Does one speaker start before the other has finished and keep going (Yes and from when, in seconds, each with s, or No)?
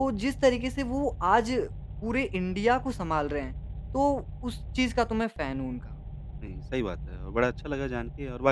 No